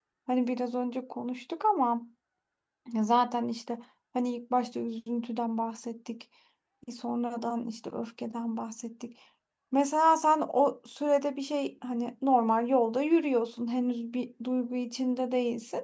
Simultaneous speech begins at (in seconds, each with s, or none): none